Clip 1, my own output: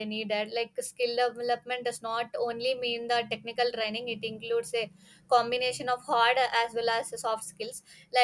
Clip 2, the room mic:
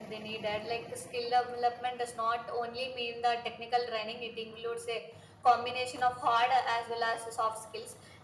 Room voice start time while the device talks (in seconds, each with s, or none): none